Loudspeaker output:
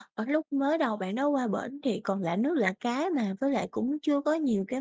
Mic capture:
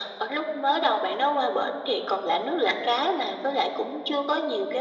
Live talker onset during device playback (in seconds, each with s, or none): none